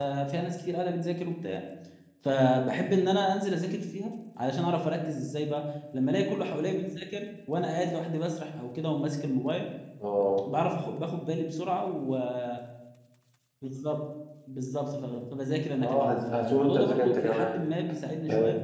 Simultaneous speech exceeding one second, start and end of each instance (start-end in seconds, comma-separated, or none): 15.8-17.6